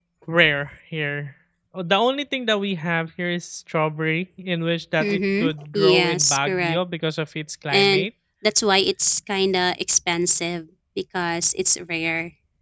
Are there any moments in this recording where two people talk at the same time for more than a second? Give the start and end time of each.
5.0-6.8

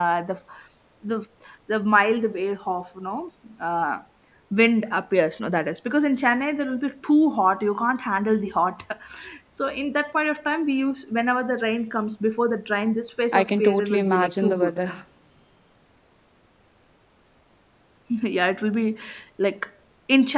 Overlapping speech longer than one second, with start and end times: 13.3-14.7

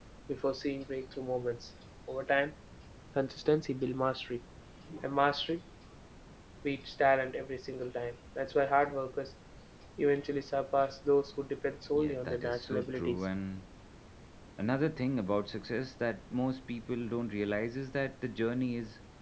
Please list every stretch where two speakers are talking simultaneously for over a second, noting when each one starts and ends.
11.9-13.3

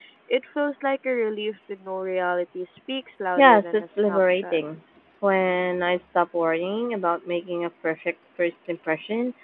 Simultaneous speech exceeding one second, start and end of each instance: 3.4-4.6

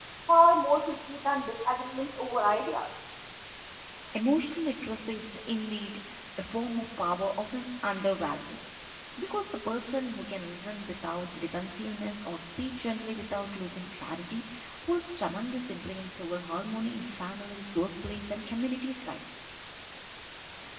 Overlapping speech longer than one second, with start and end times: none

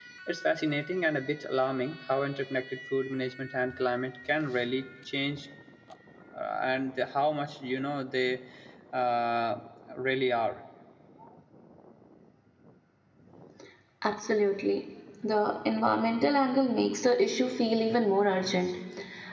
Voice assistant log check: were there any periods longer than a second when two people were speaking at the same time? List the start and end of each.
none

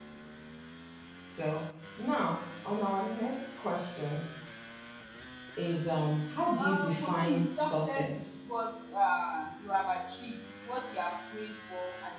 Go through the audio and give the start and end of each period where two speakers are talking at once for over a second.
6.5-8.3

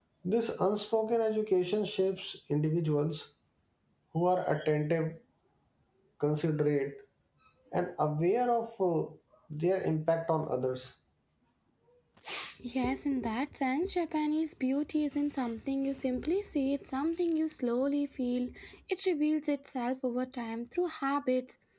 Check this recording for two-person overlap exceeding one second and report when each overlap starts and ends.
none

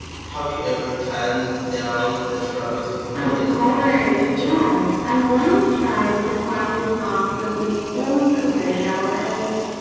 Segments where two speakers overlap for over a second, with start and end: 3.1-4.7

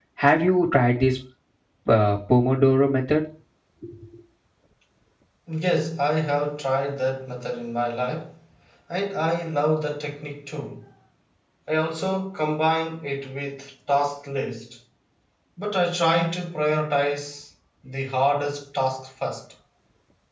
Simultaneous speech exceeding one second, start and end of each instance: none

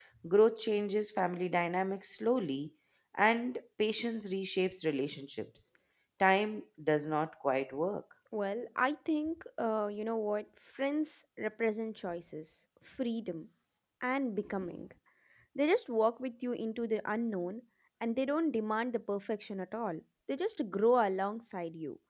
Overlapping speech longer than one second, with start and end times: none

